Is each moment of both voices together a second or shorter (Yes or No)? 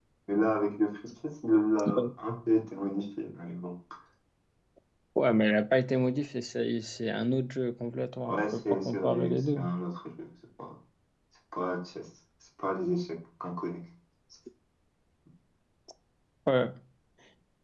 No